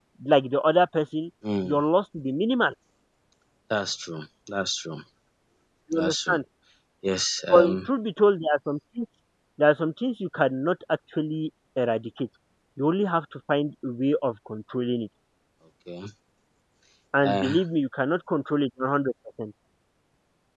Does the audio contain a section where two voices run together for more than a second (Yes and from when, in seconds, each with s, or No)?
No